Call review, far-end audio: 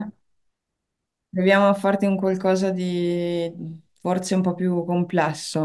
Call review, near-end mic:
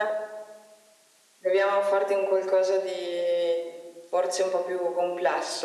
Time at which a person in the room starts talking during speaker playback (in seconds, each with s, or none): none